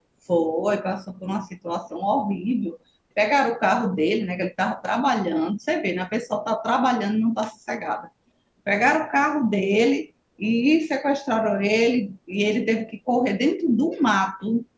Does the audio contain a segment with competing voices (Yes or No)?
No